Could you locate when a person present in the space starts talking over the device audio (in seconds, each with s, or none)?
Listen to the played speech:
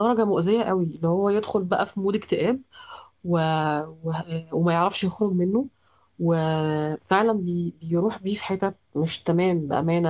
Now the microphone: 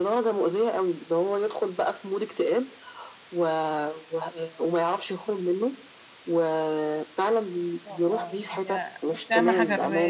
7.8 s